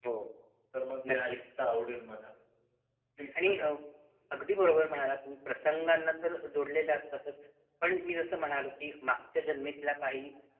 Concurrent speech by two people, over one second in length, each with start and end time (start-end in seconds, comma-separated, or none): none